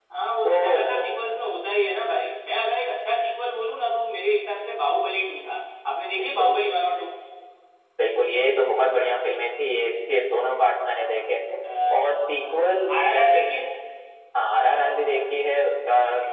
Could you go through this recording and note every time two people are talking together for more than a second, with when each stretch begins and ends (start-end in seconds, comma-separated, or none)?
12.0-13.4